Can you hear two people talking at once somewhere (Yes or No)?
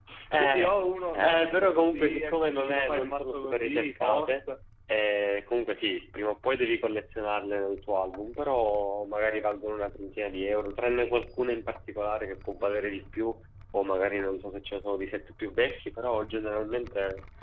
Yes